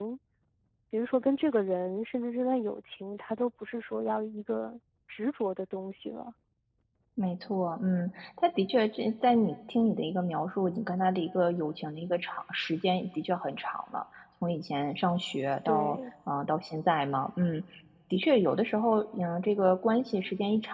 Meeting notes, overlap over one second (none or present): none